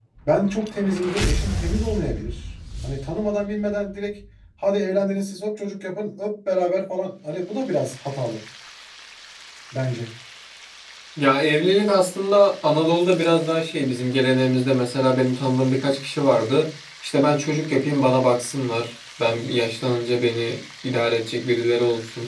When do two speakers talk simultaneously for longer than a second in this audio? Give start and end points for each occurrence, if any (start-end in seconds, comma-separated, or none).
none